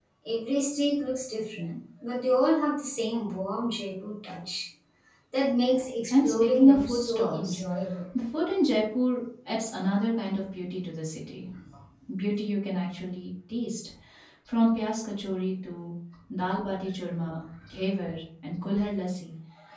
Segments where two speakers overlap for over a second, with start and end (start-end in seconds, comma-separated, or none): 6.1-7.6